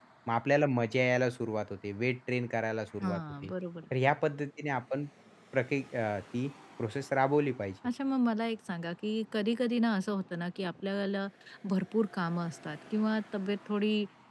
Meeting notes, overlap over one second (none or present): none